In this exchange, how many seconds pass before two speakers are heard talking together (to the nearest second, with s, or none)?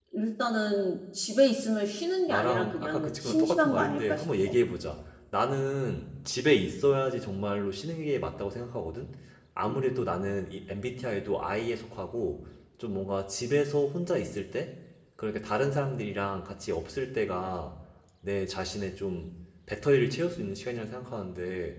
2 s